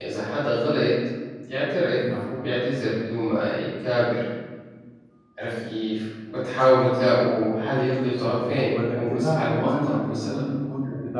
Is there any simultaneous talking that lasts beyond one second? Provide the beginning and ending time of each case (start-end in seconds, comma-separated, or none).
8.2-10.4